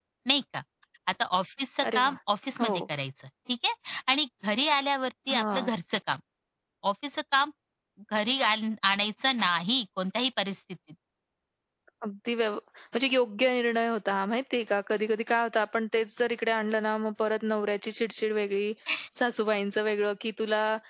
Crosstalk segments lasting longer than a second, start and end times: none

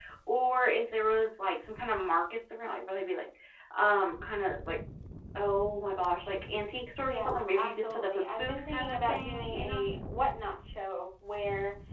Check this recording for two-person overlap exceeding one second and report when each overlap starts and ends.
7.0-9.8

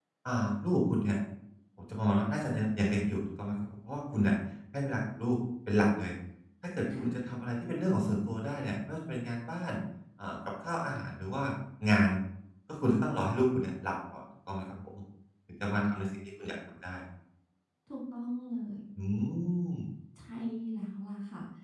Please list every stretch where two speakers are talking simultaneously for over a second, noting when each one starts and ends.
none

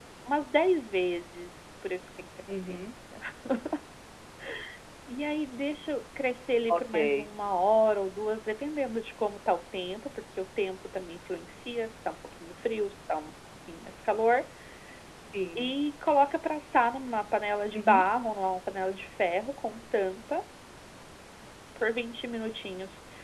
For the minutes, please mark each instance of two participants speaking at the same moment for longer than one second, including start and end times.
none

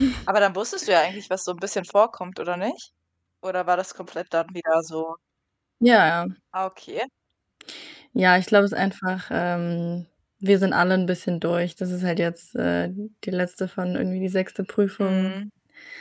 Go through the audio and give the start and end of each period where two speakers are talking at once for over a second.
none

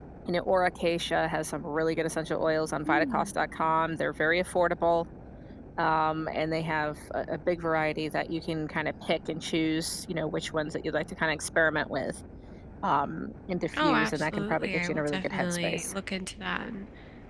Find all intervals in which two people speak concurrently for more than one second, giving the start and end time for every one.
13.8-15.9

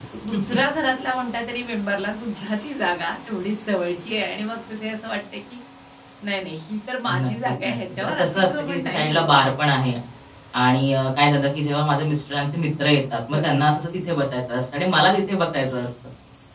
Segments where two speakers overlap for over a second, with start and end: 7.0-9.4

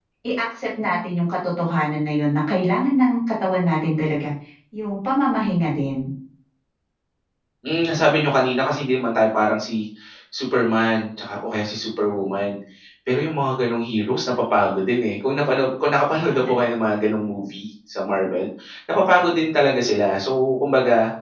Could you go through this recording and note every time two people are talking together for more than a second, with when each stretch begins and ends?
none

